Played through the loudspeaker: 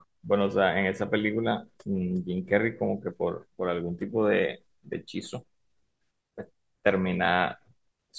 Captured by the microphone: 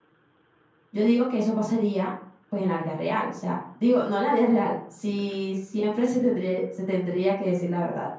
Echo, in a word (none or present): none